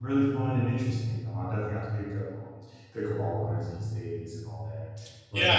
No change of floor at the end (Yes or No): No